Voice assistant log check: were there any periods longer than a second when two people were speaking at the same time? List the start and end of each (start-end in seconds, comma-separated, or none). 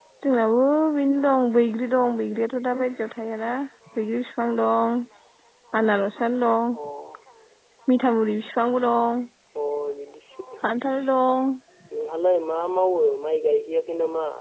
none